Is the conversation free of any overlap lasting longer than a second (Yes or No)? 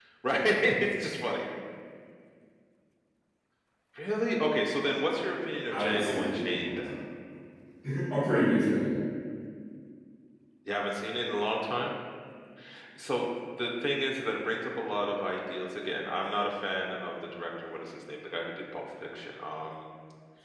No